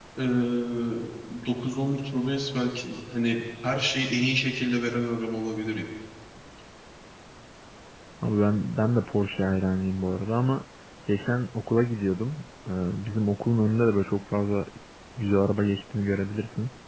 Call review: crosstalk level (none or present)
none